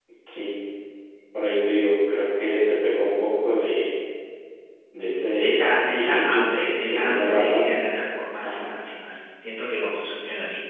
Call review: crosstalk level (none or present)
present